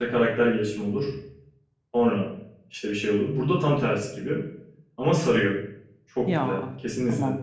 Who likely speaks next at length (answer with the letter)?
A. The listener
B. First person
A